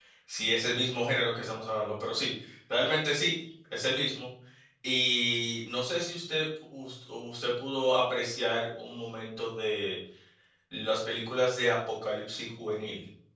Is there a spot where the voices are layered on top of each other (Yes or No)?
No